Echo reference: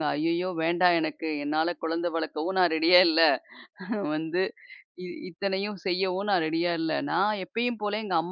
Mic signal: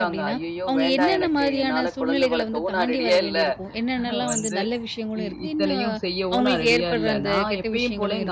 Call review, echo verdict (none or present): present